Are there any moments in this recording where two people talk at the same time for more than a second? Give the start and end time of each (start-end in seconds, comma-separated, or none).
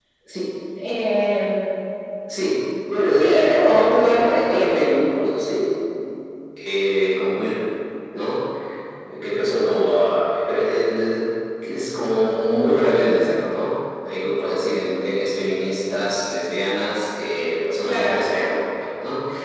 3.2-4.8